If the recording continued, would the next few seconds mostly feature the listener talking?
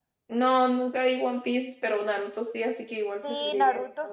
Yes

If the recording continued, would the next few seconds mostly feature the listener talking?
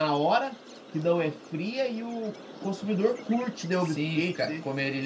Yes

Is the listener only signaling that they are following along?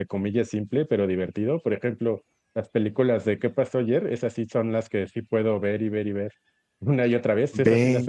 Yes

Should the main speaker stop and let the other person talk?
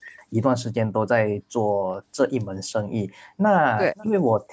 No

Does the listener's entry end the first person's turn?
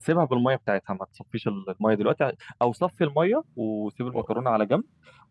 No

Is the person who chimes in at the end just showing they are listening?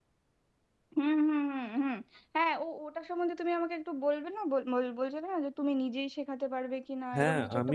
No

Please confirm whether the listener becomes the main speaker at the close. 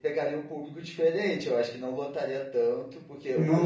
Yes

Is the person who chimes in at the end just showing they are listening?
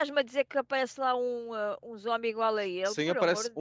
No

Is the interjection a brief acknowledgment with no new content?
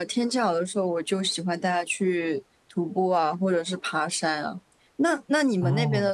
Yes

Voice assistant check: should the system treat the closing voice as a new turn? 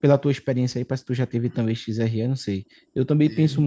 No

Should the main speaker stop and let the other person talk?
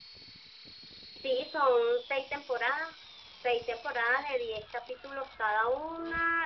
No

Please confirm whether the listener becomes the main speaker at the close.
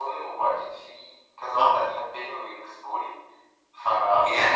Yes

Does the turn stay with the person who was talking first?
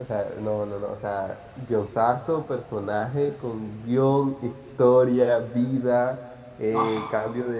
Yes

